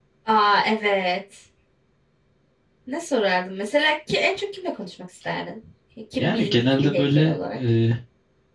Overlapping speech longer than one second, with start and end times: 6.2-7.6

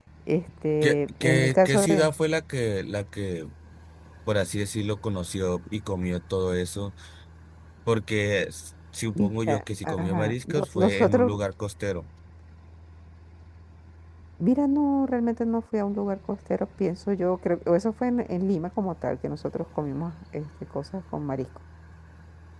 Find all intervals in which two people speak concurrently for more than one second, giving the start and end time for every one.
0.8-2.1, 9.1-11.3

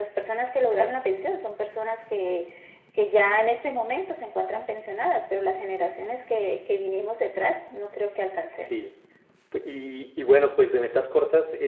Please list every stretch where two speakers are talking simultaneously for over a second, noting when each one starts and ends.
none

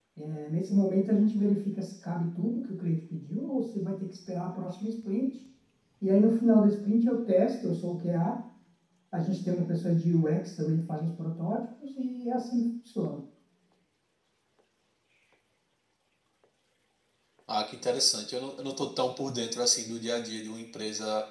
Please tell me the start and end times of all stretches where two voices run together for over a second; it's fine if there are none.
none

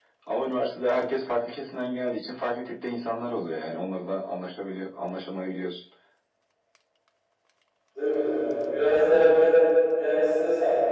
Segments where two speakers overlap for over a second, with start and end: none

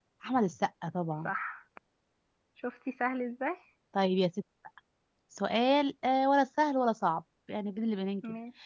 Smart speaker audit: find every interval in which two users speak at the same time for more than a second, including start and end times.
none

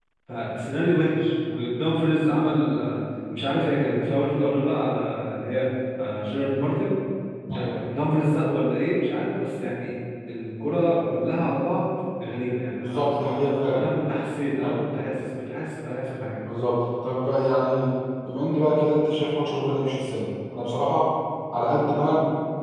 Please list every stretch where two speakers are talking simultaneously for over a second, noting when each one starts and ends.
none

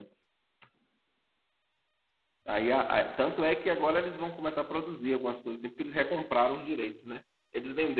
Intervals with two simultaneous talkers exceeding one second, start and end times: none

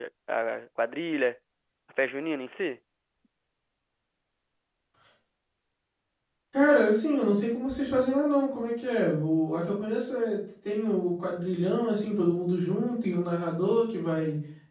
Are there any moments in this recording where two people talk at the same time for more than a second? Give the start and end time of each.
none

